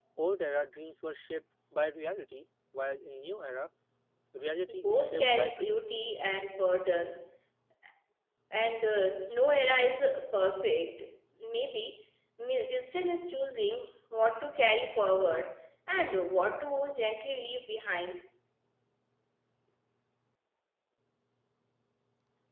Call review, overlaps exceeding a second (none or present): present